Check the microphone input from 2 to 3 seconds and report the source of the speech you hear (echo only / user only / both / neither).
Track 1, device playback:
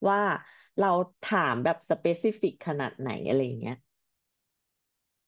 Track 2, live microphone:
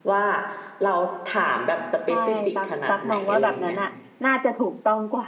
both